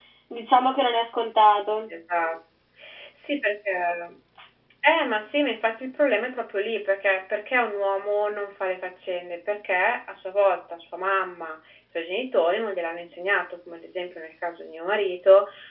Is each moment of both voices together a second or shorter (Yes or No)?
Yes